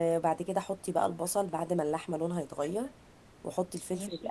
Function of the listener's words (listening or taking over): listening